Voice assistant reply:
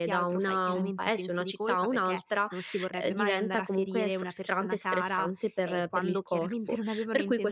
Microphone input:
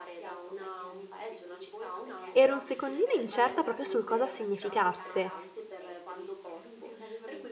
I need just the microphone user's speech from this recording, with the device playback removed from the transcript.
ero un secondino incerta proprio sul cosa significasse.

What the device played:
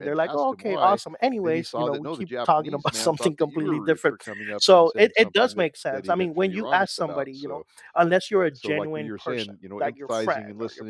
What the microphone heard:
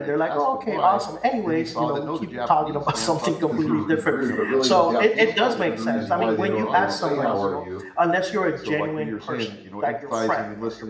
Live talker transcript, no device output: because he was being rude, but really in the Japanese culture, the reason why they don't they don't say how are you,

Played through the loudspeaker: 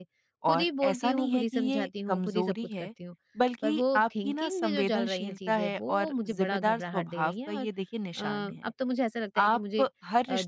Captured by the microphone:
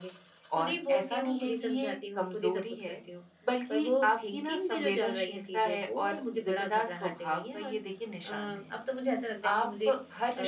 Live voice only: none

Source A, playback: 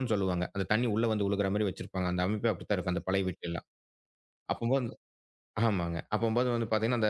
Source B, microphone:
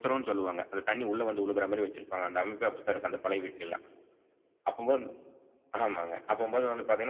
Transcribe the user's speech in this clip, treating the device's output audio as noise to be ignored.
none

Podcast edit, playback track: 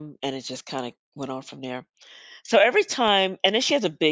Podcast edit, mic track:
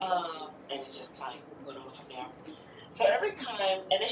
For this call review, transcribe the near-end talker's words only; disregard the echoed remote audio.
none

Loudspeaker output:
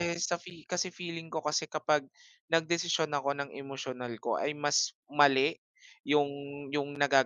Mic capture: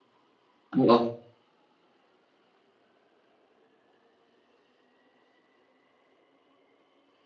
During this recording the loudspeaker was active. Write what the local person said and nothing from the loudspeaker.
Oo.

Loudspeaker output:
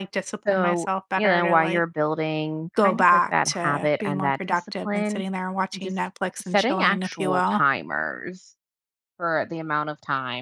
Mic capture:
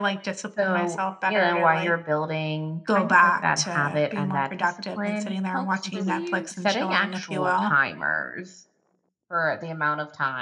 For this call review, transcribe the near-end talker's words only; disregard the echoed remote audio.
helps relieve

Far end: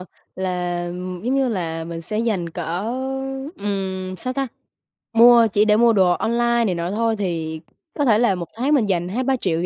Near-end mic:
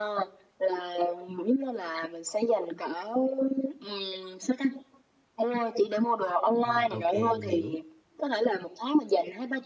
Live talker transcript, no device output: ừm, ok mình hiểu.

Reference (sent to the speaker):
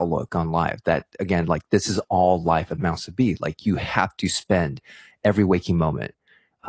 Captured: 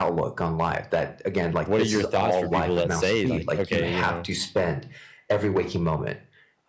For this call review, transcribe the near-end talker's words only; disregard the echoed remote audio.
what are your thoughts for people that say, like, okay, you know,

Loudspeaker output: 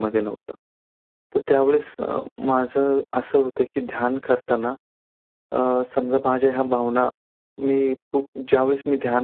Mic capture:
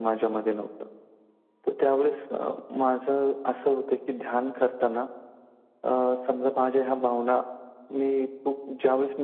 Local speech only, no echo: none

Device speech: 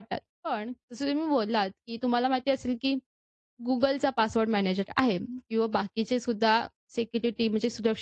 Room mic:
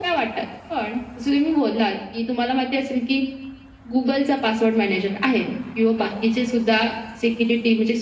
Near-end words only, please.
none

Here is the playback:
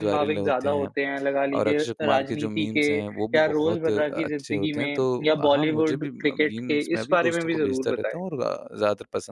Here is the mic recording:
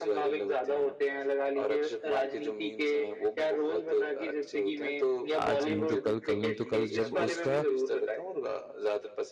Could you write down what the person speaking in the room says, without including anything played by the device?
आज नहीं तो कल, कल नहीं तो कल जब उसका

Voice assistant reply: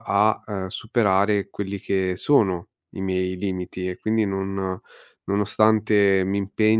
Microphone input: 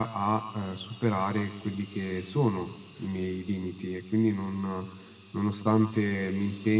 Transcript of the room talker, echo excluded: none

